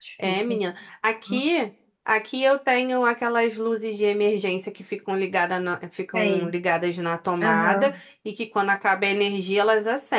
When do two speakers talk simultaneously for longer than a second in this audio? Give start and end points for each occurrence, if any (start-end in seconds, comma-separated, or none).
none